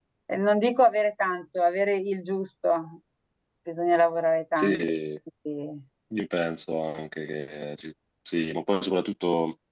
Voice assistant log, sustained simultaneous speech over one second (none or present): none